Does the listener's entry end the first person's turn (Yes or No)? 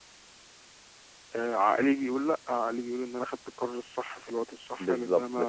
Yes